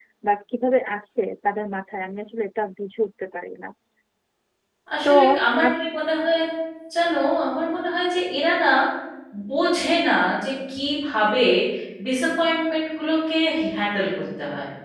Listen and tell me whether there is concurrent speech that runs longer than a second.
No

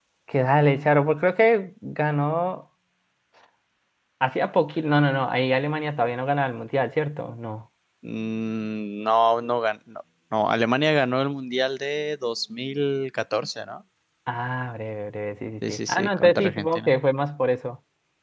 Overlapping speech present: Yes, from 15.6 s

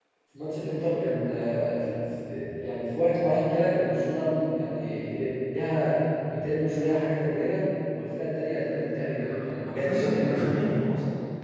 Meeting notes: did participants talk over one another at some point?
Yes, from 9.3 s

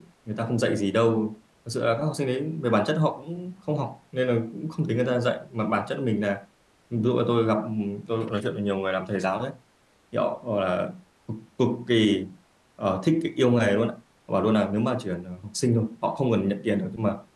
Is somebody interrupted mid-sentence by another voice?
No

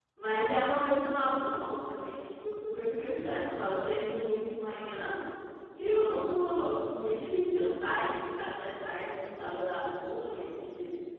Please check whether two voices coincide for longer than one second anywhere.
No

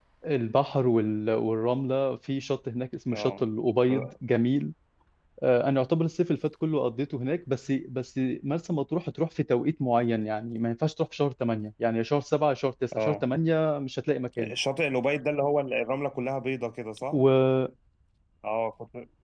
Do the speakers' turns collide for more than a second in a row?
No

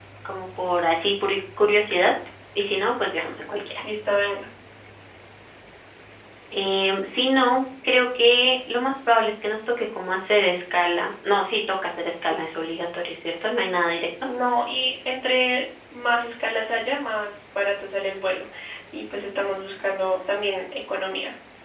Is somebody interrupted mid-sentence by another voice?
No

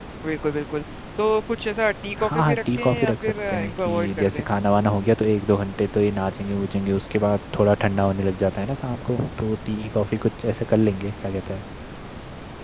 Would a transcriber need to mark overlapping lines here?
Yes, from 2.2 s

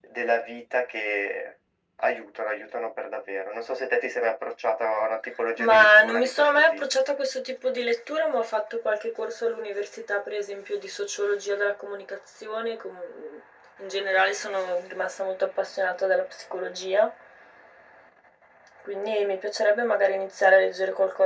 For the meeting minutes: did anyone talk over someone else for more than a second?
Yes, from 5.6 s

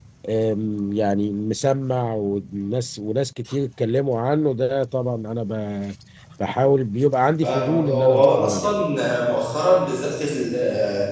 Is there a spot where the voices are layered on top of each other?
Yes, from 7.4 s

